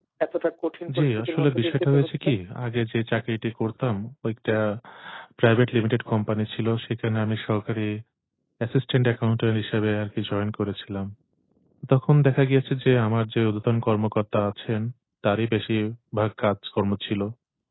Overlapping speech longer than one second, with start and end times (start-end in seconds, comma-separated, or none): 0.9-2.3